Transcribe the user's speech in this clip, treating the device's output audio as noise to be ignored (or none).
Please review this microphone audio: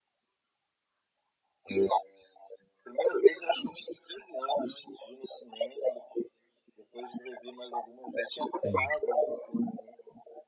Sim,